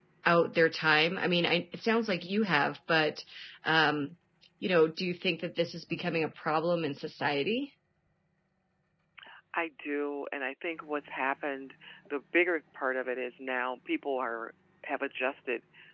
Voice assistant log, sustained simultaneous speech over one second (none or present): none